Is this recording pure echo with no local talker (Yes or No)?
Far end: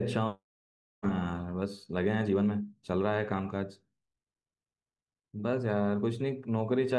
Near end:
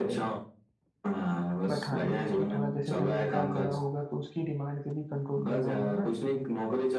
No